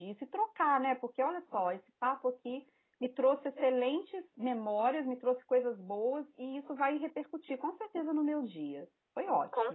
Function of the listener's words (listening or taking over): taking over